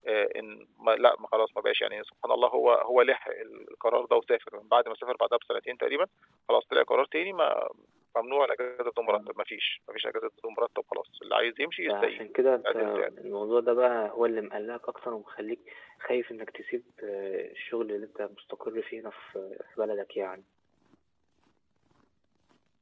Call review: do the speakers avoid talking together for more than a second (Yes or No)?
Yes